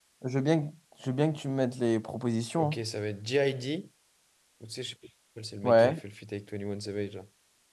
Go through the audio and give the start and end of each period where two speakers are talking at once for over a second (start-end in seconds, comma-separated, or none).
none